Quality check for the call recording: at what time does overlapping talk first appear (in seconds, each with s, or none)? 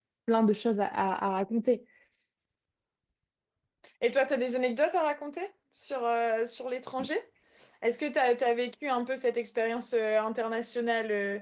none